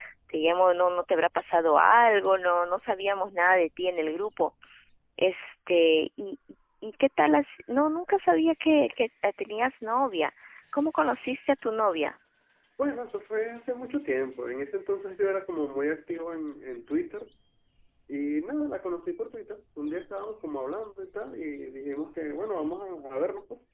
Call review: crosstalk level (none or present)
none